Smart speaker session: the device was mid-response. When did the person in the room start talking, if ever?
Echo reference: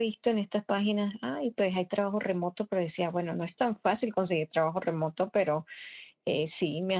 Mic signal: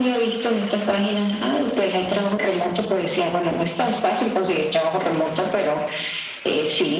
none

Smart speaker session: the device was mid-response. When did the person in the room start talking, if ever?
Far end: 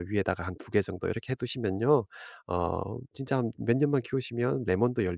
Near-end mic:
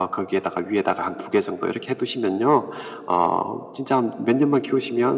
none

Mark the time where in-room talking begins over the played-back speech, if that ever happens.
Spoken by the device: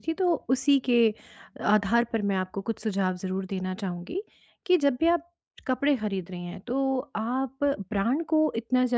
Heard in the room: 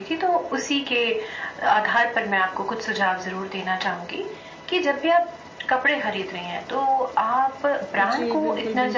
8.0 s

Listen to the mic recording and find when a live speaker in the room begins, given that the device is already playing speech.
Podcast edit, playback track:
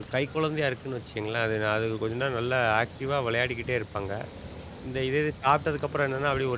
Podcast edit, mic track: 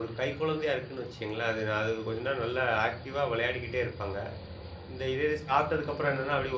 none

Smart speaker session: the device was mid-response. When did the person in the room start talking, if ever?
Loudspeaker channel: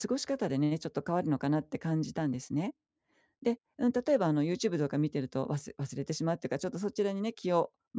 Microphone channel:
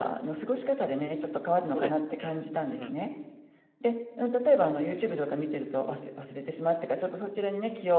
1.7 s

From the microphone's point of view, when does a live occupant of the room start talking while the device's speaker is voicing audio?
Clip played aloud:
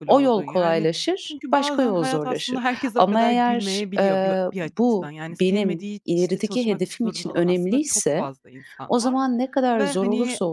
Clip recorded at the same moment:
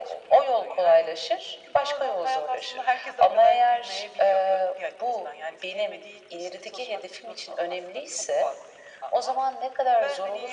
none

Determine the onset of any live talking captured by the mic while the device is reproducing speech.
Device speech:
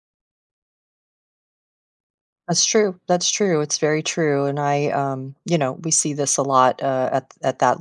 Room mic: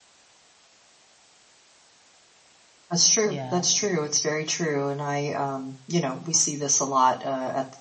3.2 s

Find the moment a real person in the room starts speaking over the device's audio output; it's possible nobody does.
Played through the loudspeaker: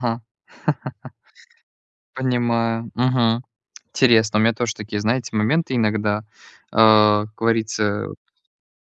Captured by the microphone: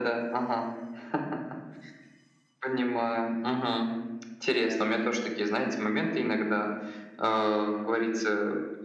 none

